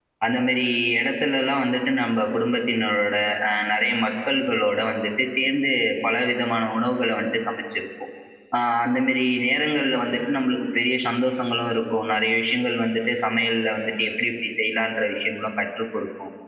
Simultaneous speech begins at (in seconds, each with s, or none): none